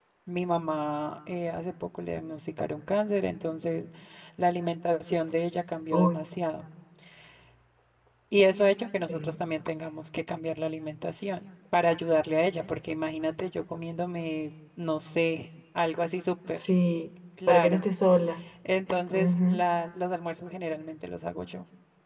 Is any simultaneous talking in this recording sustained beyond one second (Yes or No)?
No